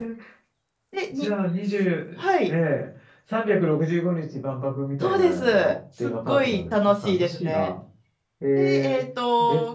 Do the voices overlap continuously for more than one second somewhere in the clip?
Yes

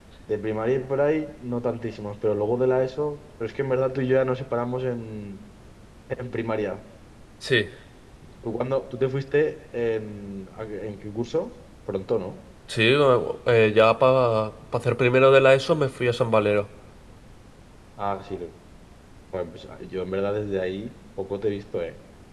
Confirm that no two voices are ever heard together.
Yes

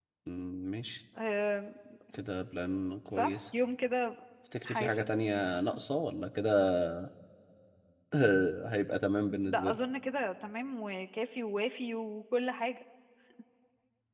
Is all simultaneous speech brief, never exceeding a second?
Yes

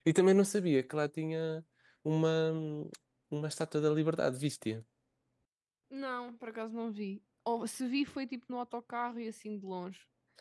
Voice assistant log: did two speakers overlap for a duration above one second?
No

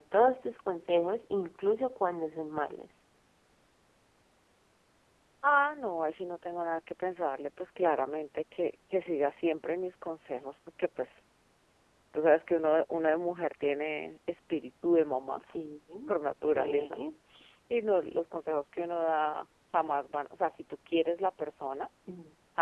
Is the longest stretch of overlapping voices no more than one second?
Yes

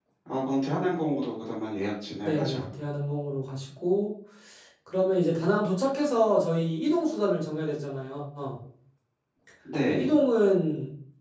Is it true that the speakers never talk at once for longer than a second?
Yes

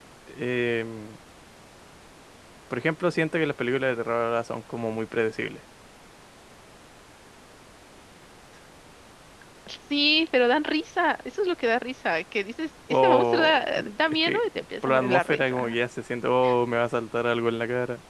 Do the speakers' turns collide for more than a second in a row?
Yes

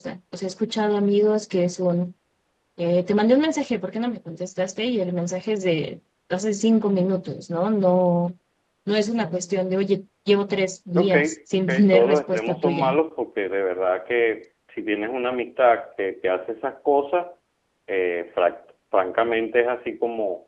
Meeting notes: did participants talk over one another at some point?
Yes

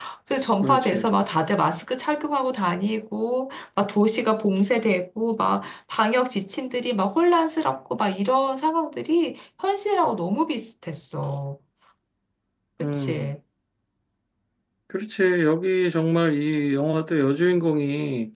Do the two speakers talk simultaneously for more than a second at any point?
No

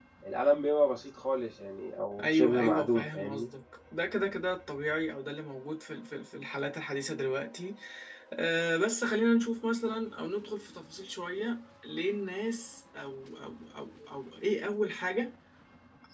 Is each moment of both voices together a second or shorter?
No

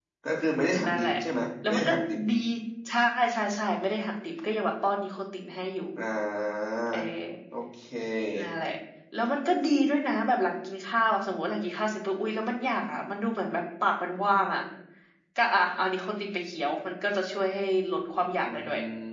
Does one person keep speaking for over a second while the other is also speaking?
No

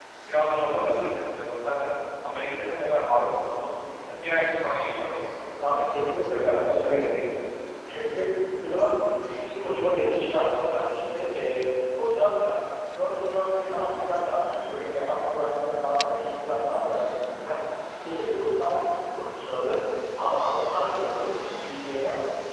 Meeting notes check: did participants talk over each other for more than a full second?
Yes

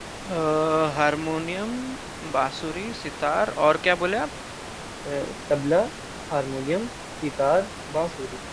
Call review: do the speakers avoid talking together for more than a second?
Yes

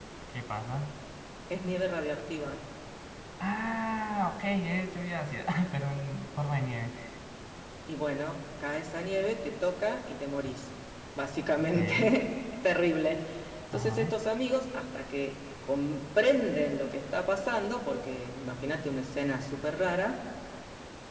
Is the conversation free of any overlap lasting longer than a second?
Yes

